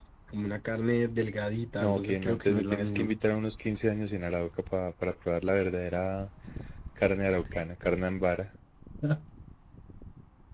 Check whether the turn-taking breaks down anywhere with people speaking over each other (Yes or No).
Yes